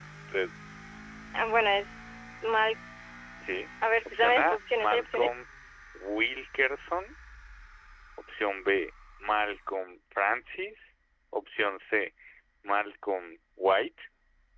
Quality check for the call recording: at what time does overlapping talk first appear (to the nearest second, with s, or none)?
4 s